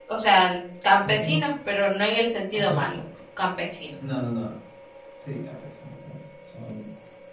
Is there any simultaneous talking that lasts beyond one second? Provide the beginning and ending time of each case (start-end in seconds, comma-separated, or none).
none